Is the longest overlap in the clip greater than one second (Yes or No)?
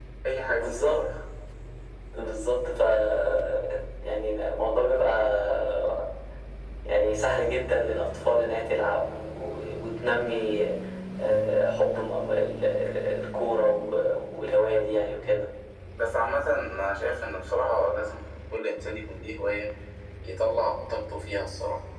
No